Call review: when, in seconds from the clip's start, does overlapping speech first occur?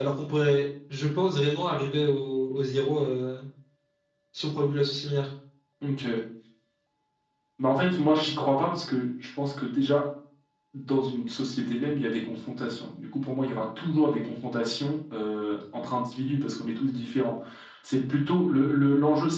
none

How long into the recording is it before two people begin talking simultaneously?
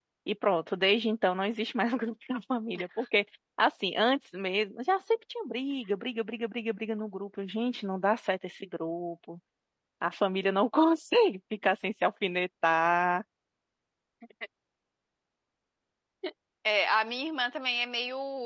none

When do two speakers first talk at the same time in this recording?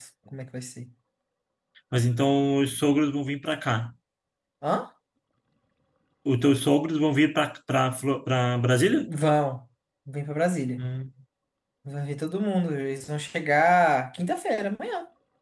none

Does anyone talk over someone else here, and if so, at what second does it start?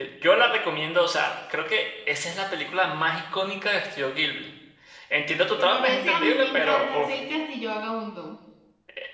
5.6 s

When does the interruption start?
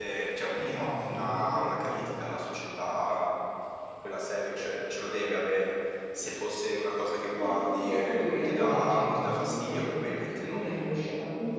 0.6 s

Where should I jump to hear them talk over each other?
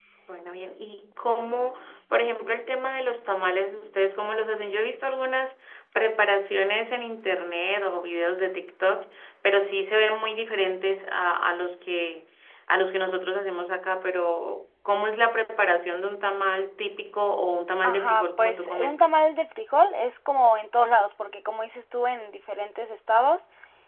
17.8 s

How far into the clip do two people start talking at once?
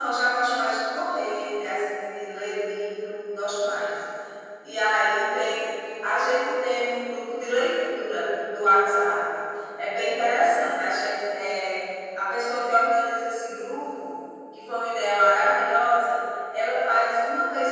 none

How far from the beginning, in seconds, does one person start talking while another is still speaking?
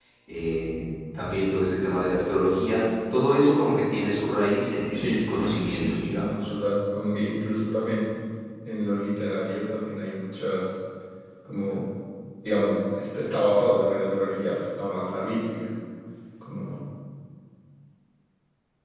4.9 s

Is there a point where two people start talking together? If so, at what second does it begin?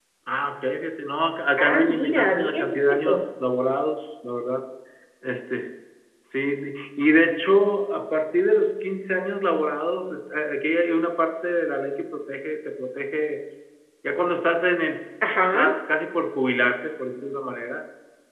1.6 s

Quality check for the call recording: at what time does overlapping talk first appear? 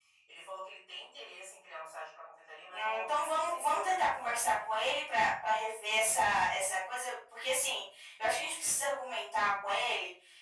2.7 s

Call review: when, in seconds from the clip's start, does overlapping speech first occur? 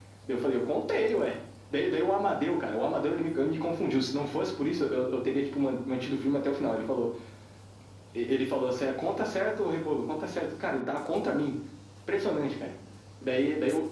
none

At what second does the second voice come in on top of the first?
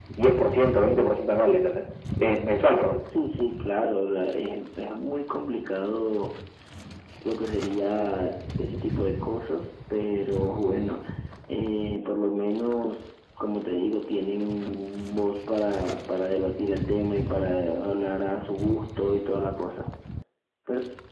none

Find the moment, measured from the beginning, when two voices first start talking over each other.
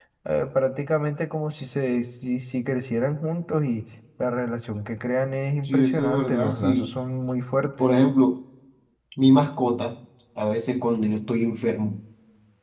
5.7 s

